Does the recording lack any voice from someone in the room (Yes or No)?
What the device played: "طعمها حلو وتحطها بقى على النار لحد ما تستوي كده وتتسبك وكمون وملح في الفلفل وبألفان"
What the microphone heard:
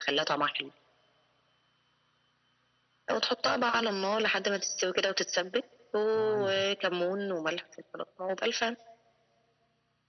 No